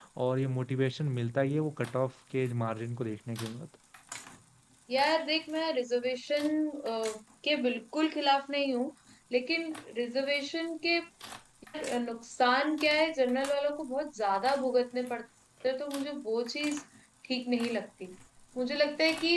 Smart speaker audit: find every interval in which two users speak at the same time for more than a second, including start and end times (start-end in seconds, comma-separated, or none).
none